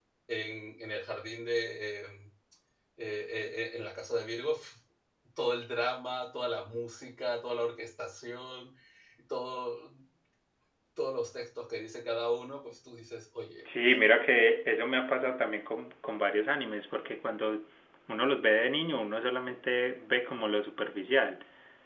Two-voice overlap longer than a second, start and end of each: none

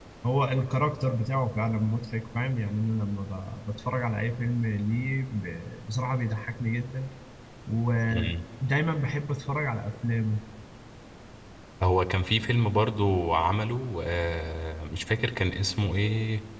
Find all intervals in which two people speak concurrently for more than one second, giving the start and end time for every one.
none

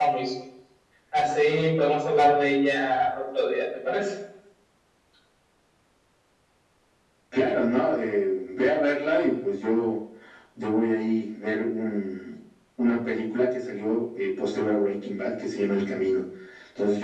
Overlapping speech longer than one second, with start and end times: none

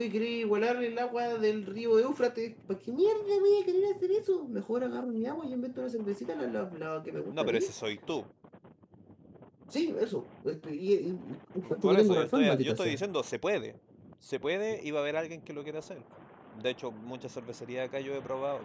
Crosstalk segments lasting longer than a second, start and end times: 11.8-13.0

